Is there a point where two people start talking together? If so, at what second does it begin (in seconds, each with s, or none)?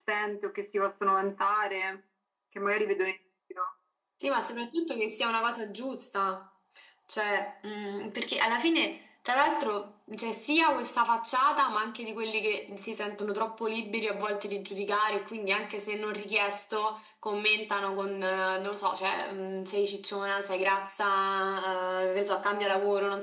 none